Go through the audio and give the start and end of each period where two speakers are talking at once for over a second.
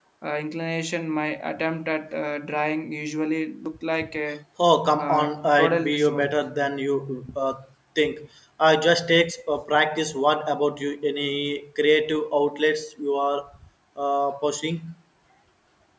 5.0-6.3

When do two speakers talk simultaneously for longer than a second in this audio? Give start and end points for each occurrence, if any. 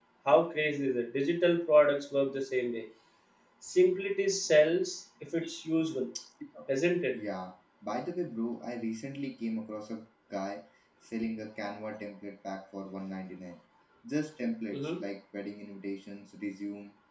none

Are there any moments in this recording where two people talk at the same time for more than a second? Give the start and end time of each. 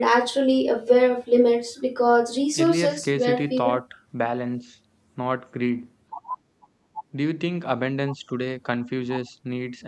2.6-3.8

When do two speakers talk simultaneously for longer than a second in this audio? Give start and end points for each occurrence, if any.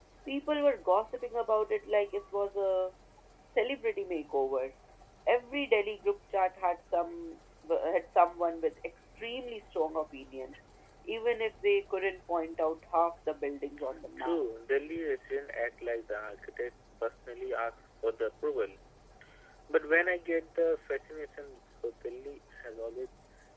none

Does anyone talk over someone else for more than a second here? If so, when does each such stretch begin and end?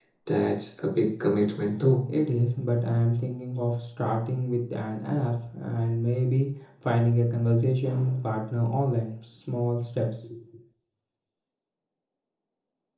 none

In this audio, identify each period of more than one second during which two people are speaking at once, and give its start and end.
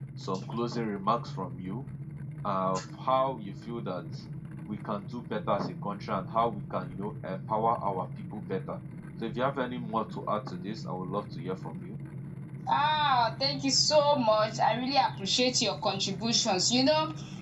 none

